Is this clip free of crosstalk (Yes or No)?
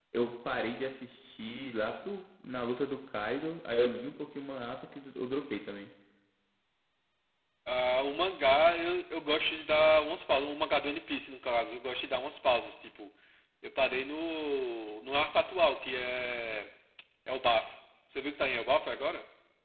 Yes